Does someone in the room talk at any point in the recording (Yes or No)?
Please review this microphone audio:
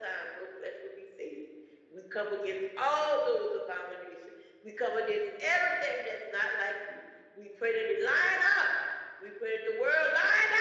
No